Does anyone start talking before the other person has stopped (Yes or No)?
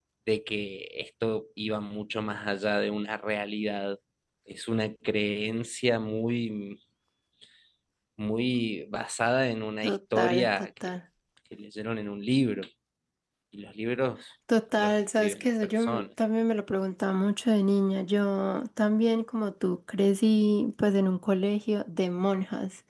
Yes